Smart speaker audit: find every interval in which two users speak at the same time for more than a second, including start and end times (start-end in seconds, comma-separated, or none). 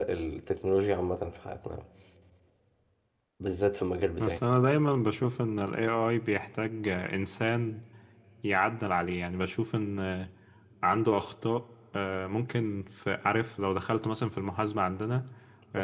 none